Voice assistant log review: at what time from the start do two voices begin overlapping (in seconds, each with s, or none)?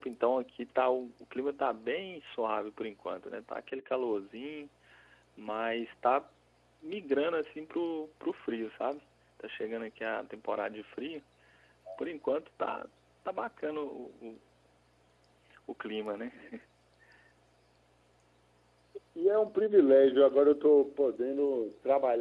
none